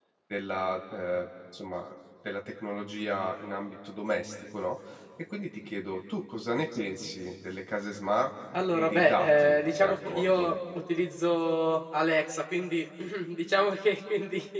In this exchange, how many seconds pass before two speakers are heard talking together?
8.5 s

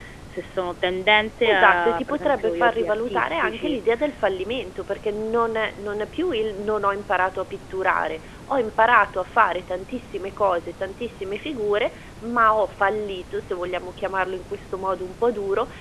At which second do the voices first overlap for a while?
1.4 s

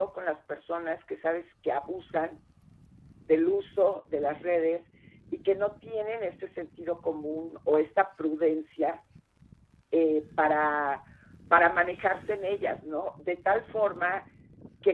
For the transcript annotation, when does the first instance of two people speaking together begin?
none

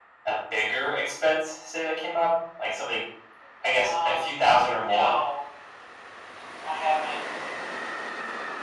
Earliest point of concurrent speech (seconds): 3.8 s

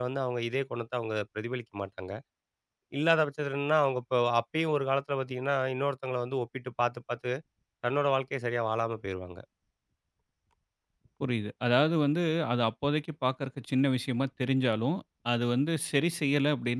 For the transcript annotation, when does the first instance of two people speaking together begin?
none

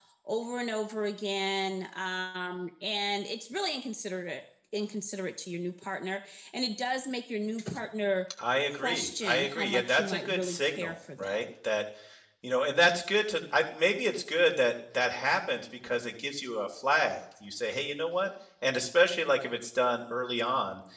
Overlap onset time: 8.6 s

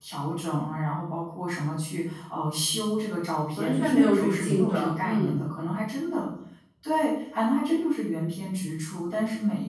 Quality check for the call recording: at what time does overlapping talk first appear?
3.5 s

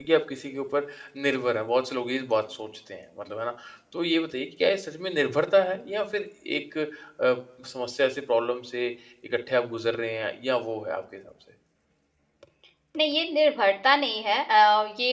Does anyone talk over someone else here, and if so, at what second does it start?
none

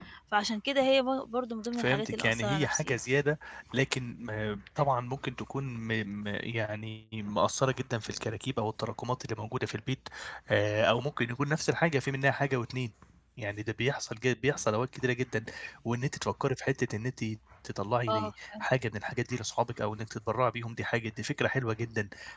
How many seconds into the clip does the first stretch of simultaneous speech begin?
1.7 s

